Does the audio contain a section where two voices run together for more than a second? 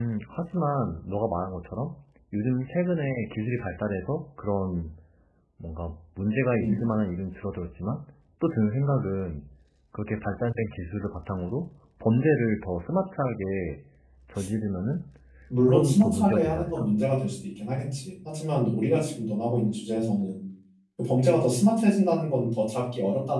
Yes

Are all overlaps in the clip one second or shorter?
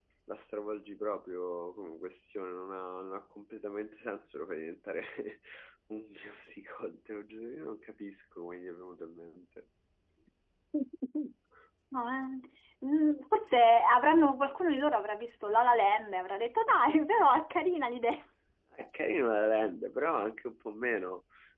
Yes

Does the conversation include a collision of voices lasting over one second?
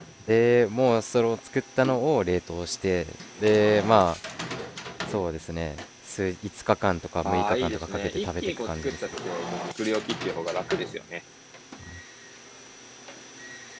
Yes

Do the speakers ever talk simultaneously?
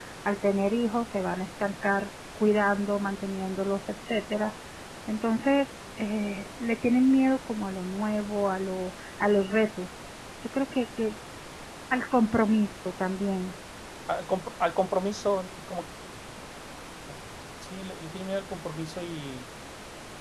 No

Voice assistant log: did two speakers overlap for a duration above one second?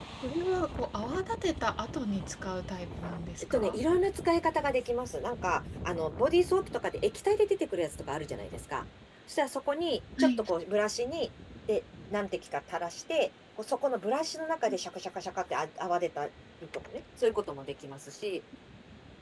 No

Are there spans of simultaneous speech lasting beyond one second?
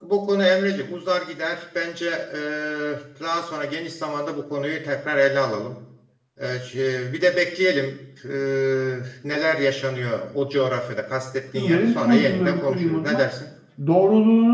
Yes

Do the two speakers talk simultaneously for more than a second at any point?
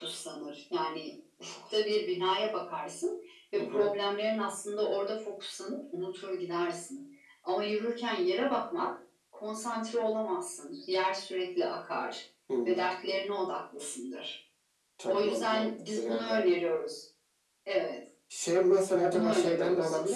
Yes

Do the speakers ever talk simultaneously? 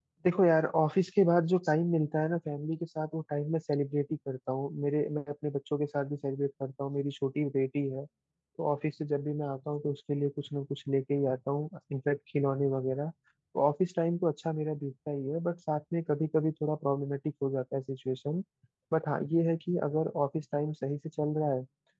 No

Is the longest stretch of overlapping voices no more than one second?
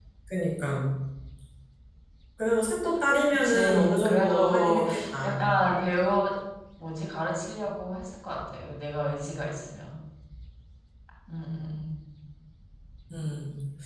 No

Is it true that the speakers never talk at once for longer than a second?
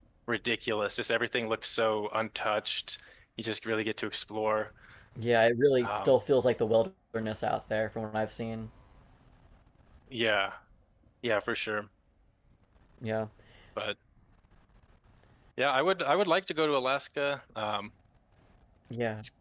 Yes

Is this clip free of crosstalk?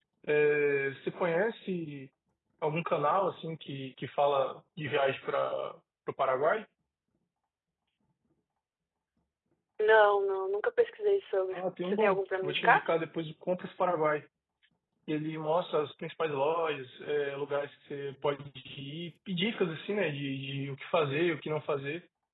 No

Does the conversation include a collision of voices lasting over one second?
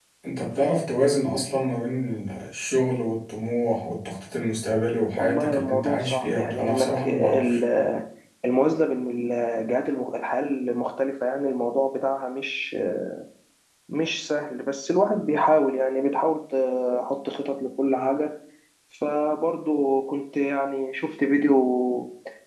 Yes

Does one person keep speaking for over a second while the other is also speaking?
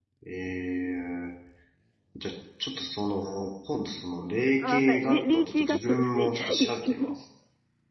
Yes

